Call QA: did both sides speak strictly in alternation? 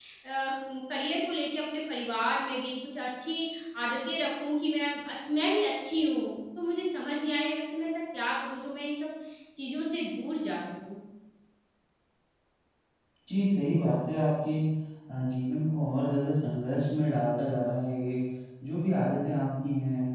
Yes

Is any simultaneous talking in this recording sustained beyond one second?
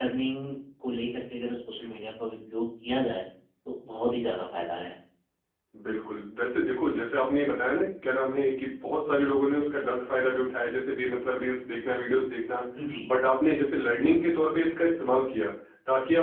No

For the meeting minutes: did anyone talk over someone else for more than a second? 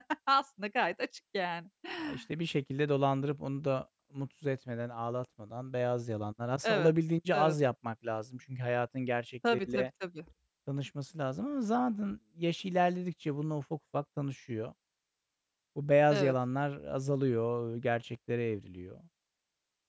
No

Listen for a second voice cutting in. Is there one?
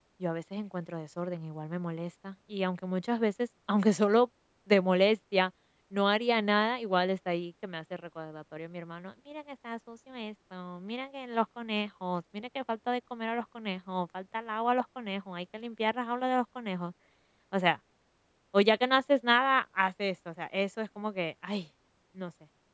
No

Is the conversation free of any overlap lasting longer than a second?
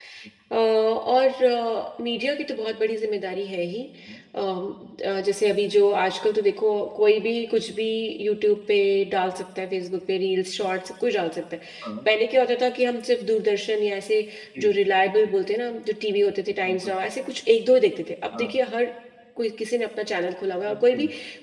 Yes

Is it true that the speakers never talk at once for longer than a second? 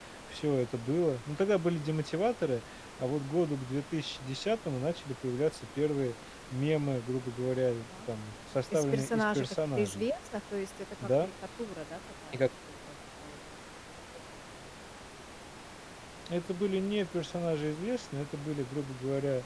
No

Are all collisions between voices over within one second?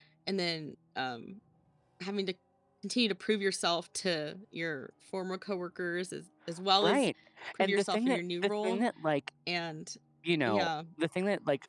No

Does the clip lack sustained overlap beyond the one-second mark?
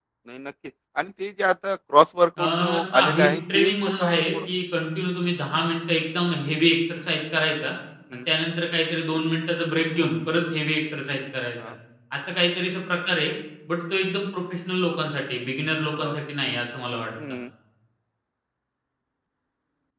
No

